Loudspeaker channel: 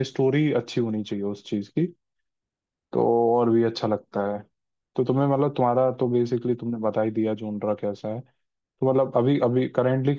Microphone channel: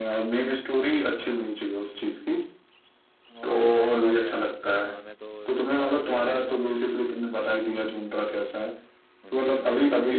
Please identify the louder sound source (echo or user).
echo